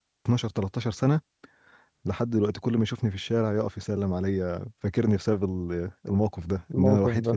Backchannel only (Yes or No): Yes